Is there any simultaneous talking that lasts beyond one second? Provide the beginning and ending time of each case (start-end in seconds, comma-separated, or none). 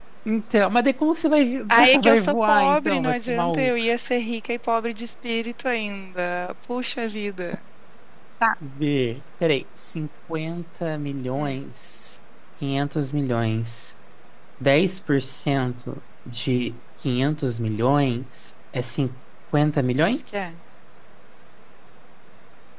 1.7-3.7